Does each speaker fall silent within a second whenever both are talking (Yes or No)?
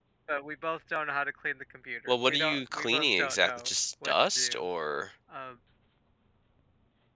No